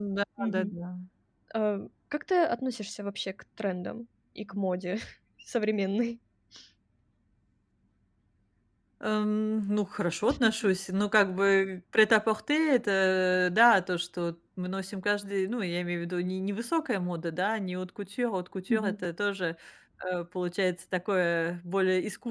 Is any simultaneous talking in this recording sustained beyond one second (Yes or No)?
No